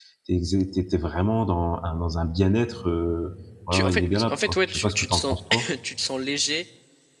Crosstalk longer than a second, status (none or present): present